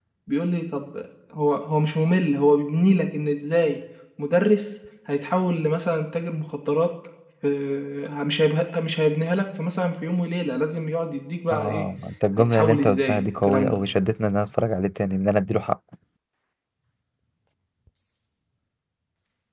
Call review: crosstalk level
present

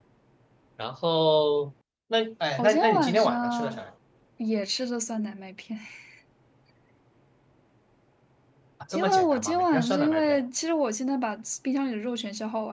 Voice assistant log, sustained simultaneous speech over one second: present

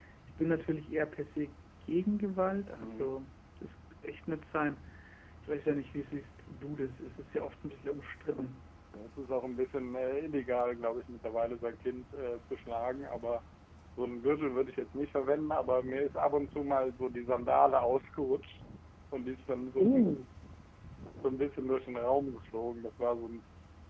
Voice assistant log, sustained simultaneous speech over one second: none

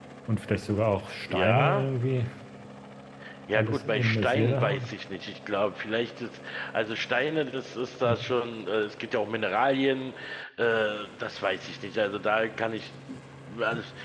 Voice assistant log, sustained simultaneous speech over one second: present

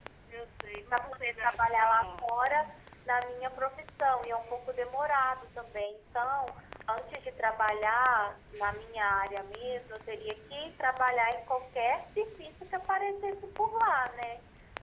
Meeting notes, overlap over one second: present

